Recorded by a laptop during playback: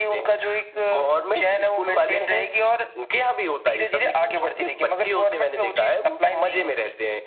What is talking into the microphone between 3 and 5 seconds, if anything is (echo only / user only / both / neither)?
echo only